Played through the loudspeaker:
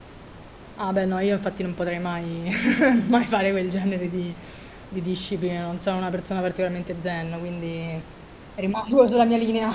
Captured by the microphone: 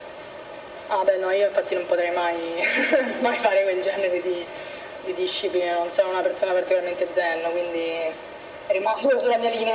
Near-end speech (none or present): none